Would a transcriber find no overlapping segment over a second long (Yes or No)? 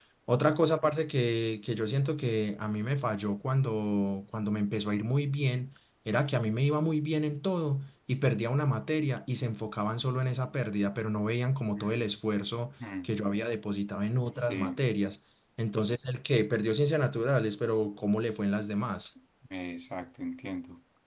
Yes